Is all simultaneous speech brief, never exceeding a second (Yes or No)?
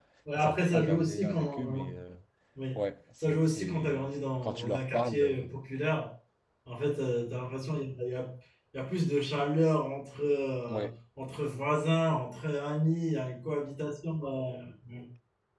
No